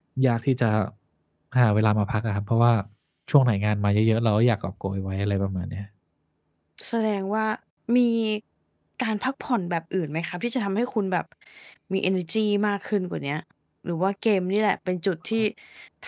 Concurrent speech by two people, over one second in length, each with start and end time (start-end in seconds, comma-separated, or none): none